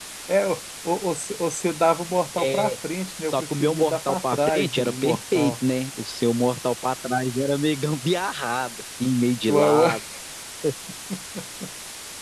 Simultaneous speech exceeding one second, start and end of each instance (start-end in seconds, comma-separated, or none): 3.3-5.5